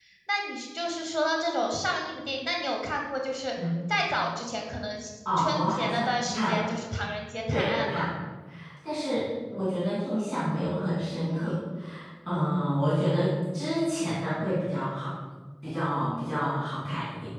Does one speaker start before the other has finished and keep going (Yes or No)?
Yes